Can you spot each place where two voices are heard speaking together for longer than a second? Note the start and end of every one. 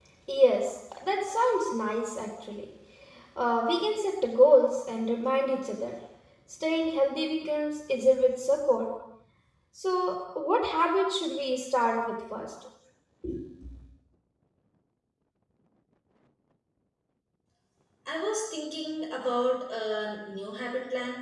none

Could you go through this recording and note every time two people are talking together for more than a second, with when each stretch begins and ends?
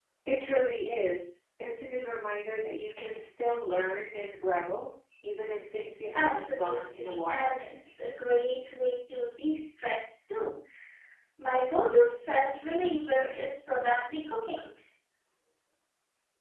6.2-7.6

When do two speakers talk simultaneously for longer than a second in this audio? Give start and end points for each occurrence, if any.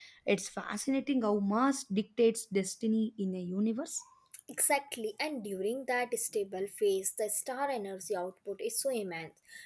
none

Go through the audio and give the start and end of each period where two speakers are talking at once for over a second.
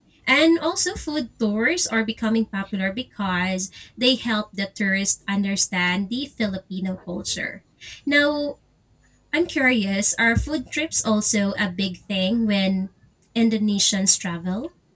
none

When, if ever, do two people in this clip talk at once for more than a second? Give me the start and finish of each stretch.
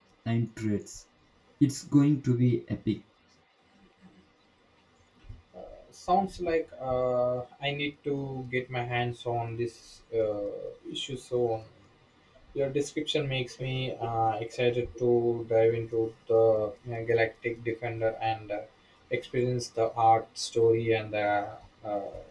none

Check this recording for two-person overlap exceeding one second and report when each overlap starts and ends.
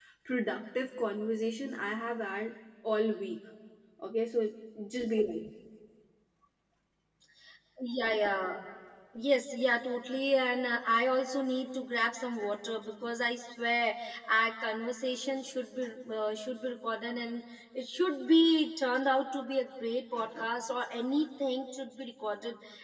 none

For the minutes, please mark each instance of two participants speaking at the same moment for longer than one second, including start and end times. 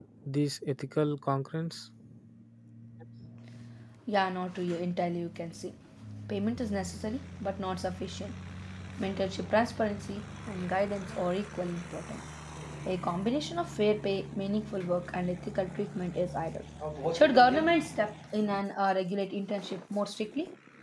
none

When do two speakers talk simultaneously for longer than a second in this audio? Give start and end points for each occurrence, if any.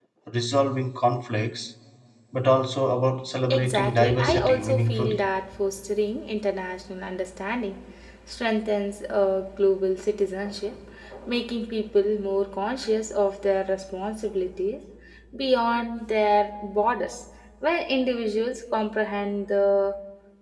3.5-5.2

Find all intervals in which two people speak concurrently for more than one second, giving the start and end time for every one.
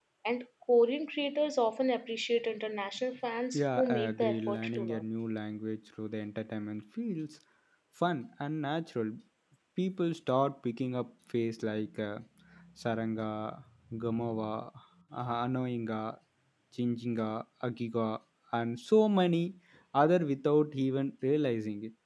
3.5-5.0

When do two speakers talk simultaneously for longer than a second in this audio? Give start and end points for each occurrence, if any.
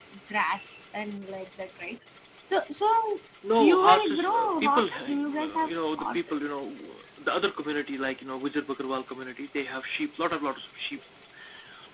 3.6-6.6

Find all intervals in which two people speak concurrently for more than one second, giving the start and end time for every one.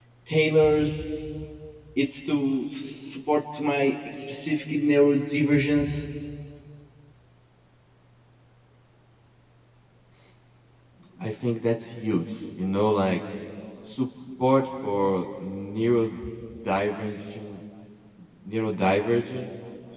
none

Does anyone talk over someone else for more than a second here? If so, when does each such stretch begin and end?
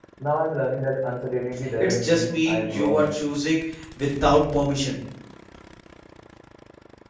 1.8-3.0

